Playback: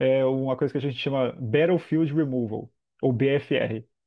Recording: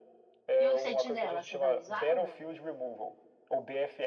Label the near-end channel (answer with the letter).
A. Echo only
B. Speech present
B